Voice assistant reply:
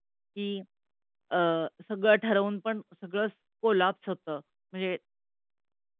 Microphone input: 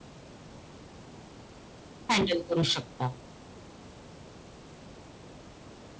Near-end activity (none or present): present